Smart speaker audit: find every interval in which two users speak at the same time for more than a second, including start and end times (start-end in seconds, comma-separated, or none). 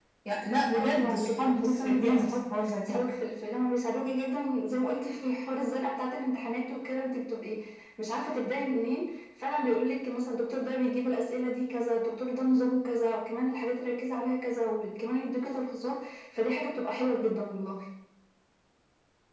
0.7-3.0